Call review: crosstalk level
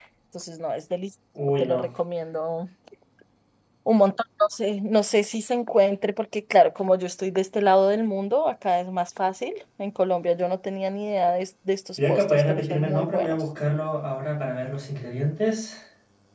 present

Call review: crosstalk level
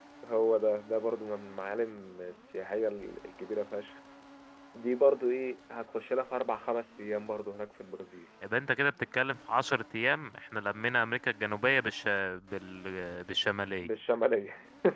none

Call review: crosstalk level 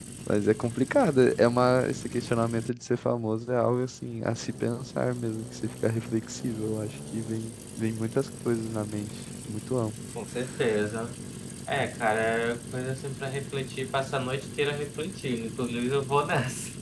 none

